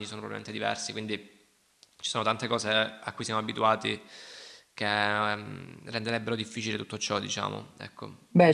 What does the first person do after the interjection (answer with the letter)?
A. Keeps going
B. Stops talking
B